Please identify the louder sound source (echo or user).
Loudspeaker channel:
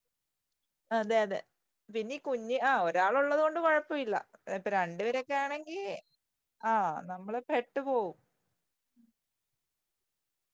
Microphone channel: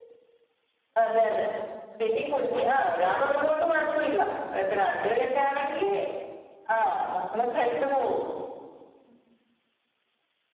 echo